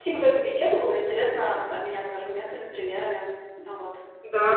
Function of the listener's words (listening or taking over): taking over